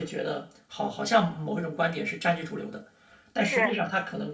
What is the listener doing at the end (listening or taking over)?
listening